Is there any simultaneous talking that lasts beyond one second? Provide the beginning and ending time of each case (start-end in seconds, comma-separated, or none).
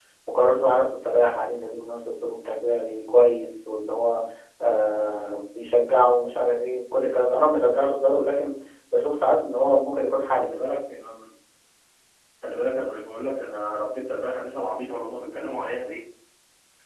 none